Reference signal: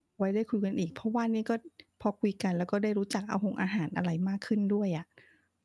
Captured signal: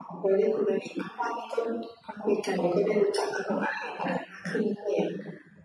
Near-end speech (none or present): none